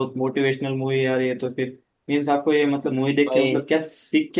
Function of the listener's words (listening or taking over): listening